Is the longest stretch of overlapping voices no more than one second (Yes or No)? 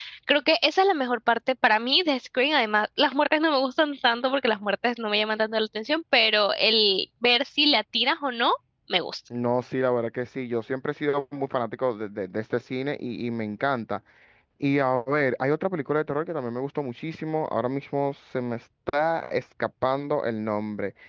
Yes